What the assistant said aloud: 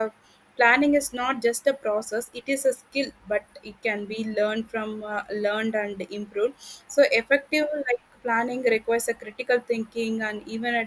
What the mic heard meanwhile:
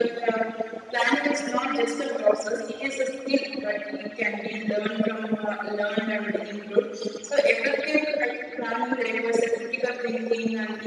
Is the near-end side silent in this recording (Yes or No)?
Yes